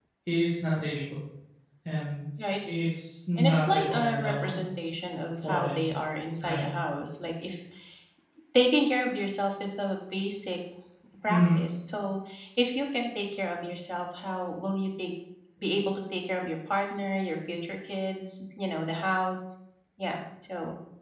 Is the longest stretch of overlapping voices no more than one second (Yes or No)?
No